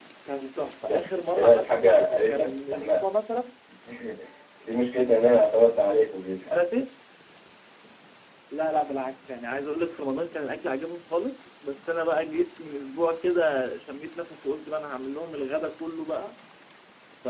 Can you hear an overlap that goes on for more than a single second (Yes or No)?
Yes